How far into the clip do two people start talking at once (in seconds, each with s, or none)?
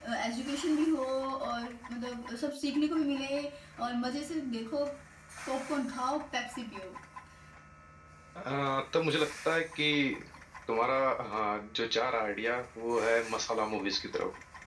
none